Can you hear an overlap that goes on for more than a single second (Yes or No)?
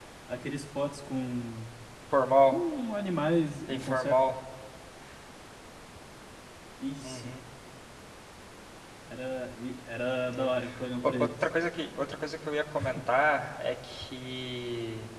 No